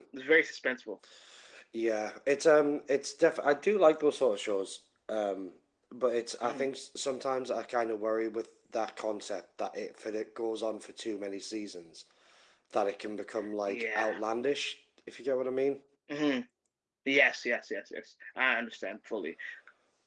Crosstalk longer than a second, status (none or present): none